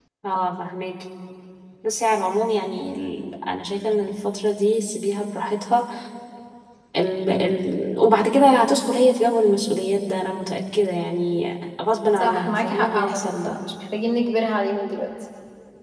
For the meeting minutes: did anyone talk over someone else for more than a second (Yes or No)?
Yes